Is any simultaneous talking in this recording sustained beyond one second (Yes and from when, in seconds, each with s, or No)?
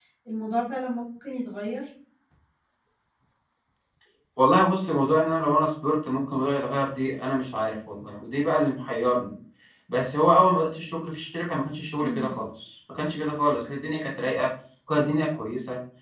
No